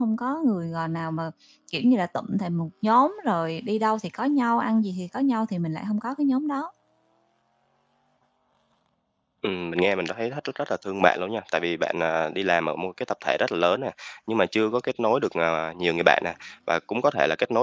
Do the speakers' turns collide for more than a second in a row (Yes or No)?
No